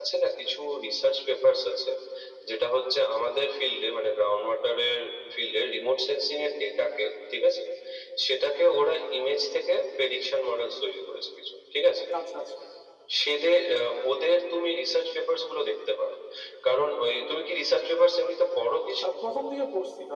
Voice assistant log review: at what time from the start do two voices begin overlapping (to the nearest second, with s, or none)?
none